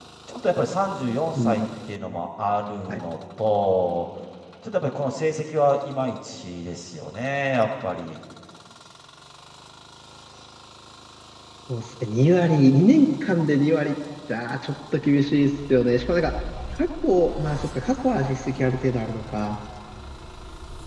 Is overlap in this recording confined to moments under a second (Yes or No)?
Yes